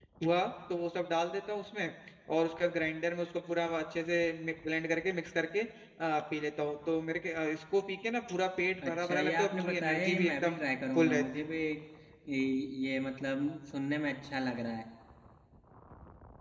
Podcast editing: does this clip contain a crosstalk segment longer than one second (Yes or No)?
Yes